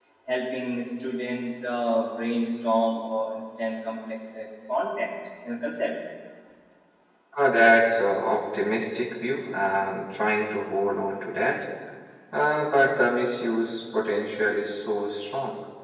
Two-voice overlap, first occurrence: none

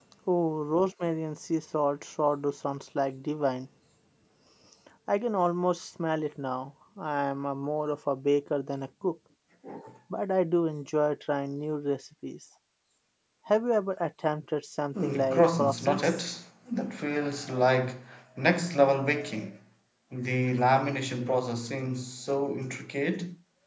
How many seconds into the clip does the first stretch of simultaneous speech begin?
14.9 s

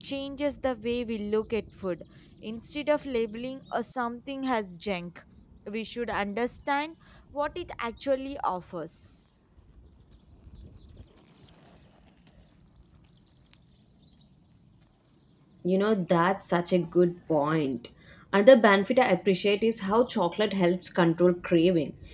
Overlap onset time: none

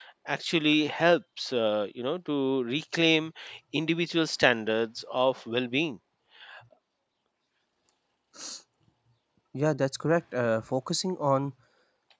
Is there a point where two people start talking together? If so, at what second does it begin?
none

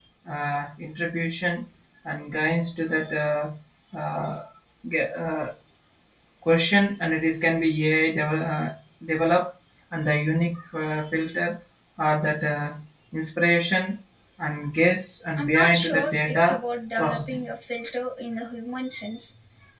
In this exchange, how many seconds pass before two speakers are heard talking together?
15.4 s

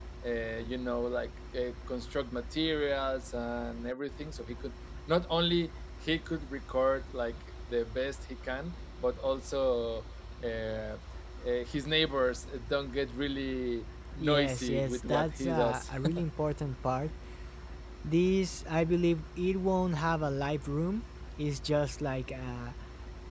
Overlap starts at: 14.2 s

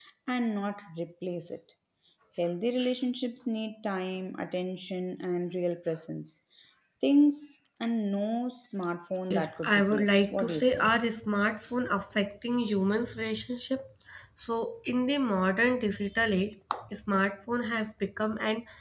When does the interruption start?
9.3 s

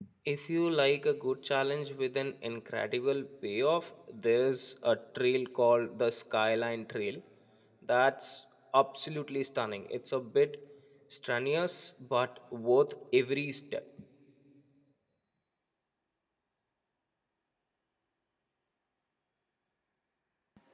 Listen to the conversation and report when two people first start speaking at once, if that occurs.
none

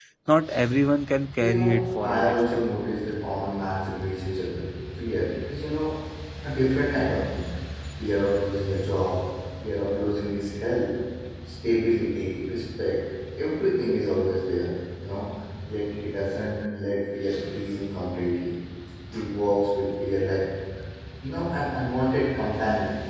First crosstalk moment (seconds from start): 1.4 s

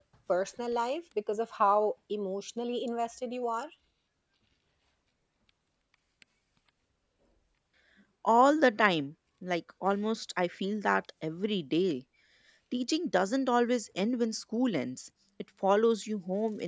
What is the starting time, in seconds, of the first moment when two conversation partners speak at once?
none

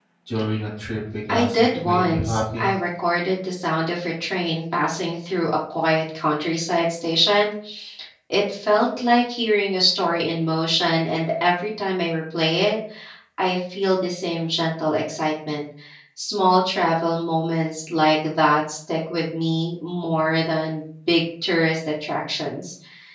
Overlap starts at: 1.3 s

